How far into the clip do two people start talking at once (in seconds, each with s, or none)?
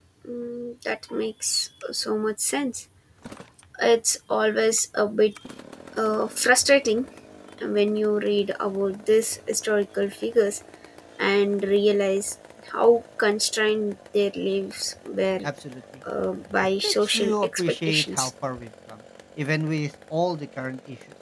16.8 s